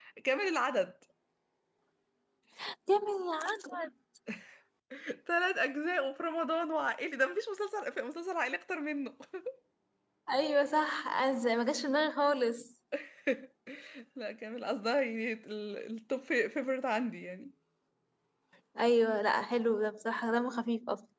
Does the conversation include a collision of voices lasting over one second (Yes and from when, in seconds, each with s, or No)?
No